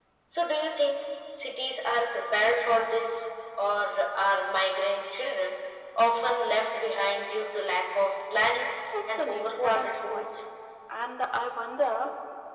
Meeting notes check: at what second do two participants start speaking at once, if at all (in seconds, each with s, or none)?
8.9 s